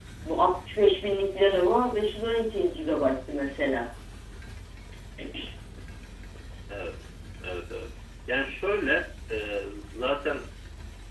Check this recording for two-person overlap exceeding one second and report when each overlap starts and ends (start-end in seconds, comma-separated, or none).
none